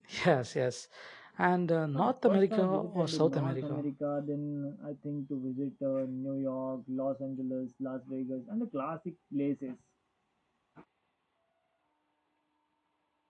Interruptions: present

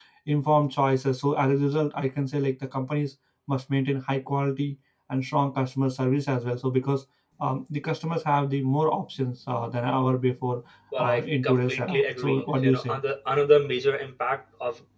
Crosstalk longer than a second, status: present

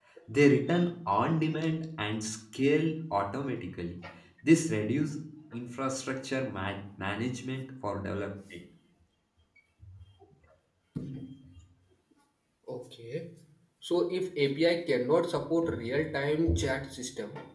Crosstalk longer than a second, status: none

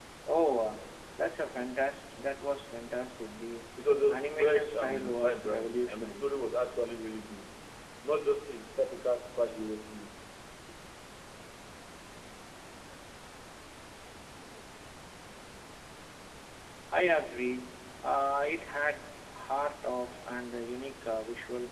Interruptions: present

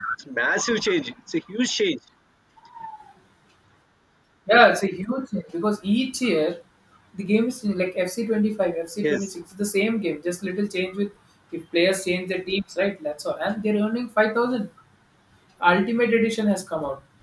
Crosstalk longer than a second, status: none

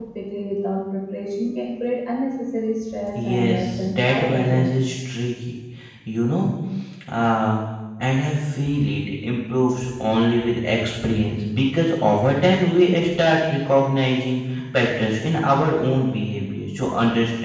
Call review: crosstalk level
present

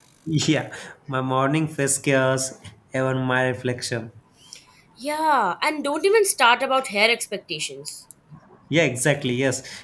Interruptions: none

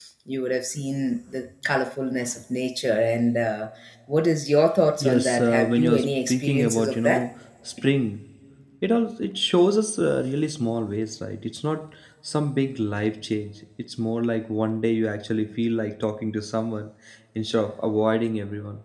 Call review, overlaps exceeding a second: present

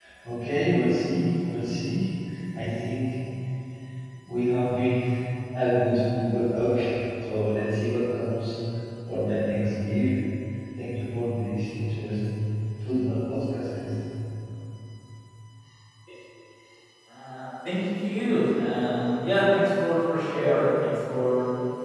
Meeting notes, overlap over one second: none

